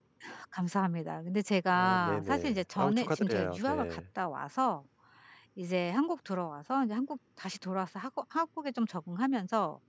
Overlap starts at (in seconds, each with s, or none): 1.7 s